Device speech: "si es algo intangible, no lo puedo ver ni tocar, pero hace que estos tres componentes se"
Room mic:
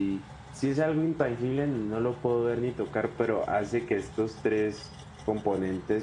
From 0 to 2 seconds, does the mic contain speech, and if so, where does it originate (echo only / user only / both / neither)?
echo only